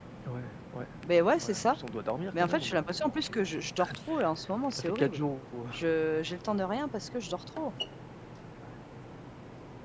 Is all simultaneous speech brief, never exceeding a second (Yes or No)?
No